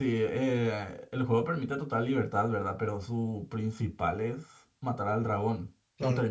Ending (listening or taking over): listening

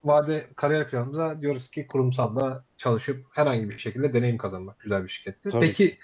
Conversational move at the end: listening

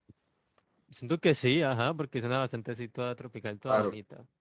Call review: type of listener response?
taking over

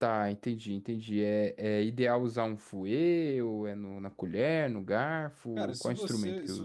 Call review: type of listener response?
taking over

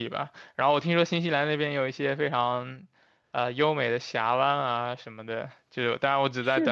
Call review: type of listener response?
listening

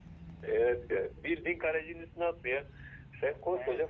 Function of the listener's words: listening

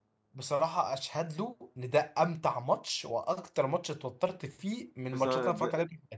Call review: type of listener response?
taking over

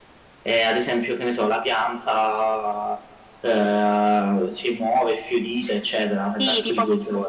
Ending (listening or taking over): taking over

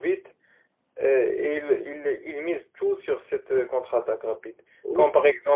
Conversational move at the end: listening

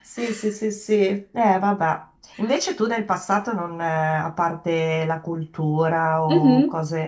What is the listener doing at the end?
listening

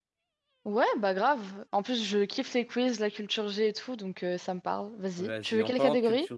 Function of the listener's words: taking over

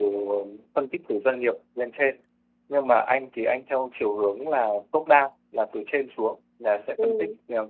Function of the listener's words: listening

